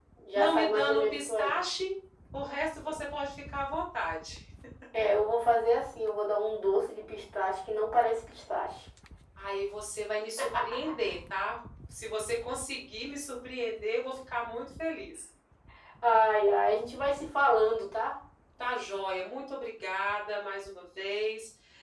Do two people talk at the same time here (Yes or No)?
Yes